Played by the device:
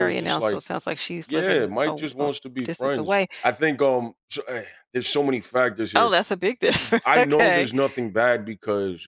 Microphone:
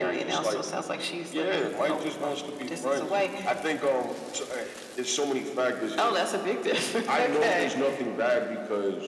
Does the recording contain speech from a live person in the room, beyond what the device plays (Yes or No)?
No